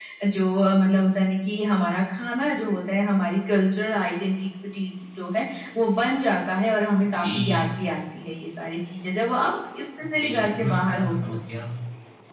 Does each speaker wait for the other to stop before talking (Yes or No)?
No